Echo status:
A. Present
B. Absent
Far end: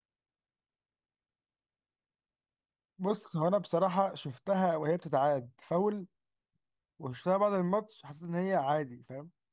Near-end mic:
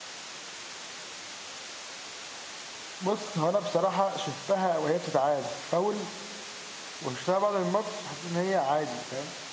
A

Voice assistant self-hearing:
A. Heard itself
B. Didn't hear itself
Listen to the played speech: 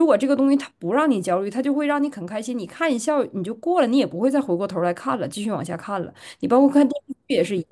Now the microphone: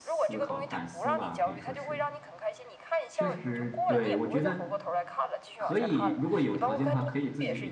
A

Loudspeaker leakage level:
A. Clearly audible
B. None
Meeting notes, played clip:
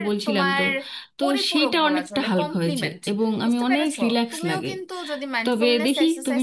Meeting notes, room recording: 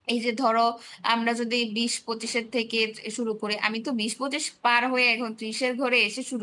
B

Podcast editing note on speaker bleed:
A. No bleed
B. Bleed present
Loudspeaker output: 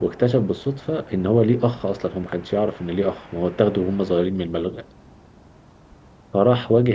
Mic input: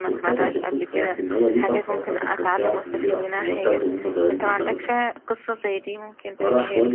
B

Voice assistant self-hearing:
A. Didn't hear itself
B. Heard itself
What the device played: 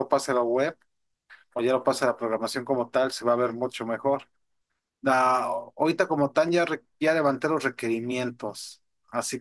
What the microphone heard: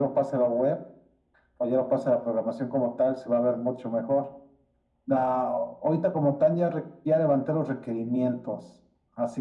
B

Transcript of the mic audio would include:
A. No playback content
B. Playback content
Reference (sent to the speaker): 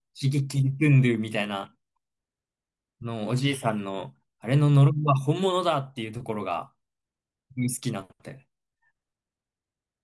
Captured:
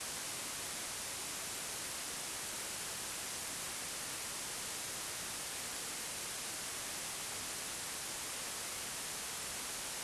A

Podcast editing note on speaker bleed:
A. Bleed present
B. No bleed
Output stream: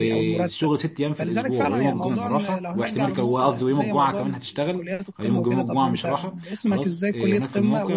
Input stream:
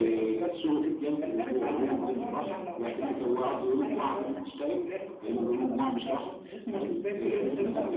A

